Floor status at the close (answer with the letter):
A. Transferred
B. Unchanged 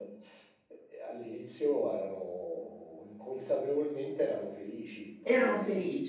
A